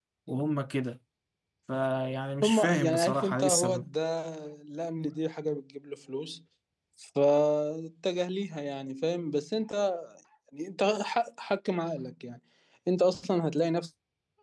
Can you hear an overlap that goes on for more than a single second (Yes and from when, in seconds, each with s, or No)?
Yes, from 2.4 s